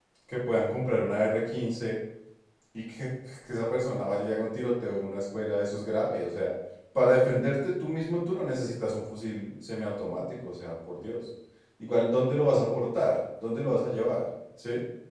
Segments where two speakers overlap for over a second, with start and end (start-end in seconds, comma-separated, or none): none